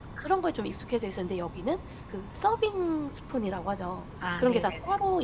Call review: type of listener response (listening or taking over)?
listening